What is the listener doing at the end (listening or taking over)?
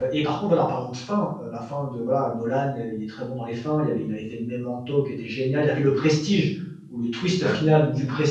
listening